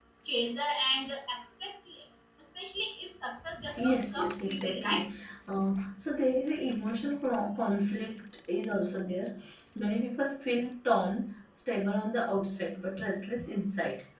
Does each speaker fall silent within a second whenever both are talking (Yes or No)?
No